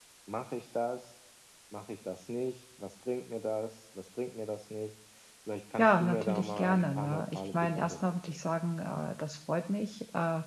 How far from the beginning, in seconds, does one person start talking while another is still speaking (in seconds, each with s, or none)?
5.8 s